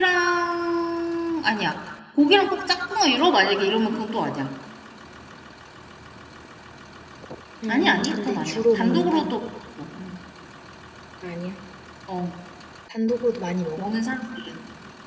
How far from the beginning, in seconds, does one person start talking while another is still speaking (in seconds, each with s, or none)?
7.7 s